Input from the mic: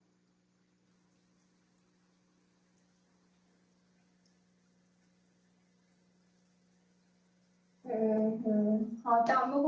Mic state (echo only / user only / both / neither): user only